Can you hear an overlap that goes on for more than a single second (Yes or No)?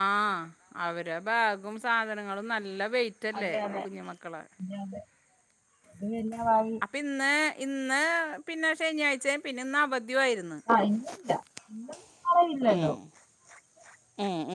No